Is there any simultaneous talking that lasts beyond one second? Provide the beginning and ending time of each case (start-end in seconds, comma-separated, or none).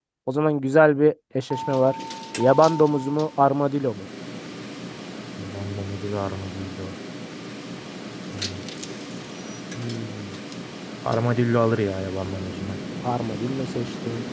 none